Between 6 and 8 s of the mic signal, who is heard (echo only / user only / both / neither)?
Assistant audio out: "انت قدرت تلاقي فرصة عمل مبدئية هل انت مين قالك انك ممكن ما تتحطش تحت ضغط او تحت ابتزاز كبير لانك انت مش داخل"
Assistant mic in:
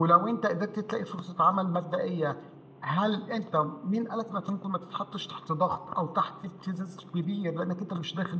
echo only